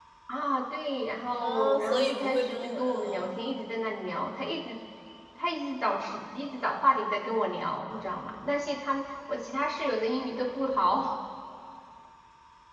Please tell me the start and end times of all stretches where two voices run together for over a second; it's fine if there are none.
1.4-3.2

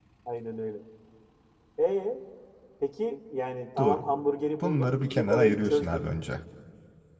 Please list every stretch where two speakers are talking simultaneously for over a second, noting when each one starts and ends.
4.6-6.0

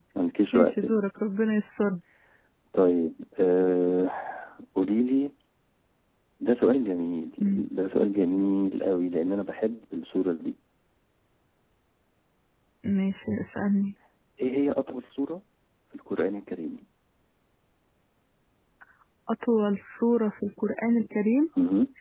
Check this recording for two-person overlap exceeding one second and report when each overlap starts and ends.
none

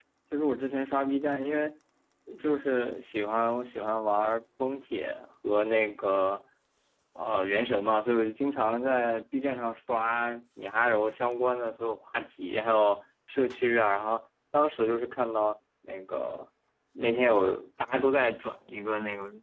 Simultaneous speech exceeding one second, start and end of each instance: none

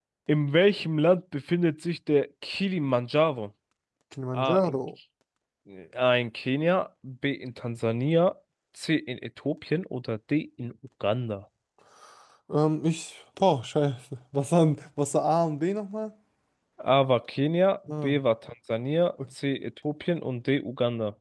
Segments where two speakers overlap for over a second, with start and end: none

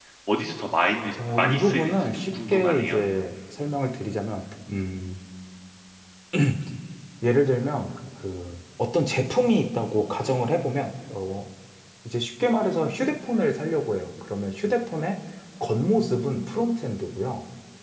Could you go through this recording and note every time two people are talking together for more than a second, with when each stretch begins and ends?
1.4-3.0

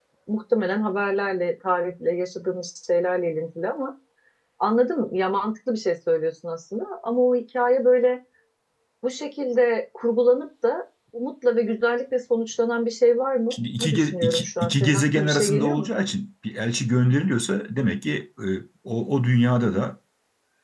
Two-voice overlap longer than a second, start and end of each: 13.5-15.9

